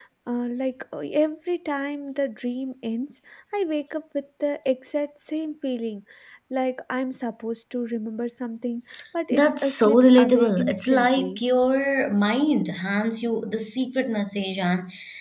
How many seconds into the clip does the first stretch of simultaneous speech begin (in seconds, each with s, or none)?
9.3 s